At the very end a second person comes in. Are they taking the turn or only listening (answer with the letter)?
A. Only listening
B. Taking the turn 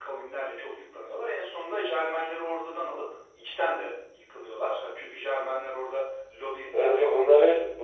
B